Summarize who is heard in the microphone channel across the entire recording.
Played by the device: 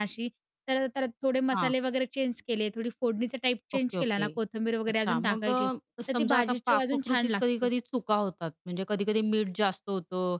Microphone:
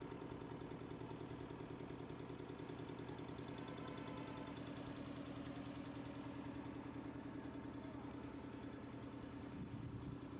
neither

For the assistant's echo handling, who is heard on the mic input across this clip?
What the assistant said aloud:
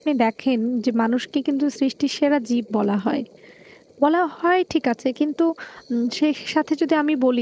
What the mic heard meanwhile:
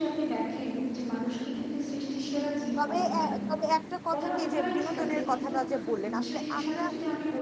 both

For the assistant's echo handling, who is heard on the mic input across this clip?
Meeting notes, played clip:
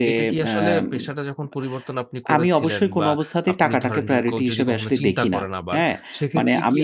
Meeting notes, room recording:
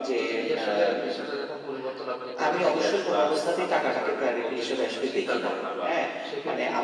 echo only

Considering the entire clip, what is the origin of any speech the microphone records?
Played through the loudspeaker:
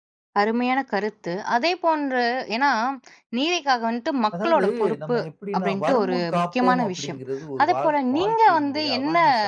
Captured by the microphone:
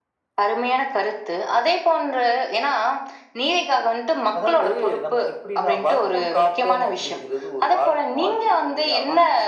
echo only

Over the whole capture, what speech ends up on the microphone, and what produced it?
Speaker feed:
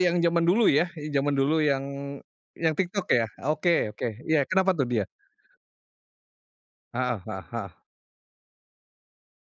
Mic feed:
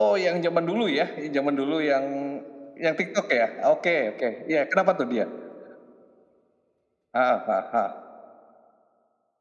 echo only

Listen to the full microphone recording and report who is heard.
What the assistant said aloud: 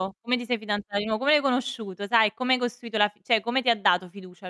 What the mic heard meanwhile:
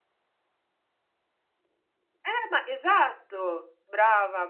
user only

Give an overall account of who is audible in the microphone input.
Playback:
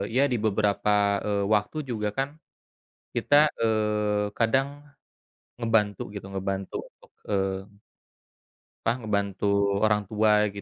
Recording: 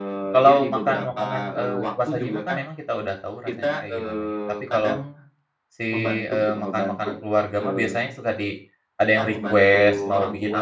both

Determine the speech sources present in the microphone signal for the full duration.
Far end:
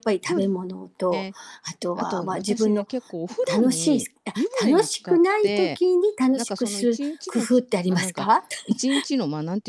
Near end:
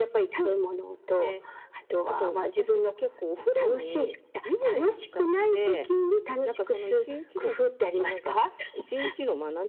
echo only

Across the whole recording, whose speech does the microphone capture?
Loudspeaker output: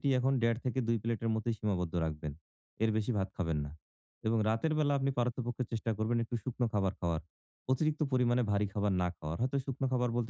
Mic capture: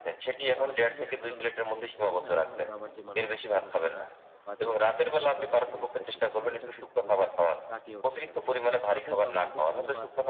both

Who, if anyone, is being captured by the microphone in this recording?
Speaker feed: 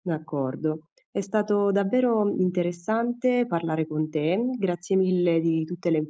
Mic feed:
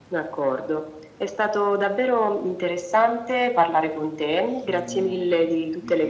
both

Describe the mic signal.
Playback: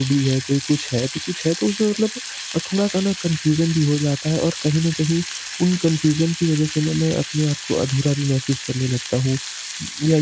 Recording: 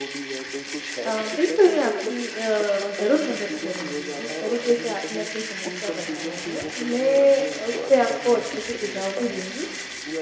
both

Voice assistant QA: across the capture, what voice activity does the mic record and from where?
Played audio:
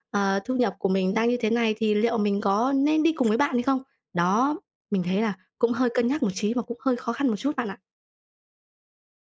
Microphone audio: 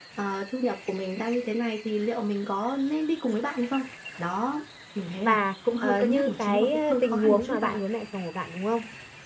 both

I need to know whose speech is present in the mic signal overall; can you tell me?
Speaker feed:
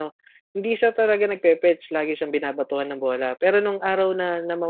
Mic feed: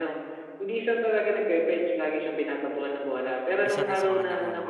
both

